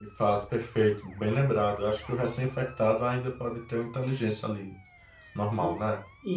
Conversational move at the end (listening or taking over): taking over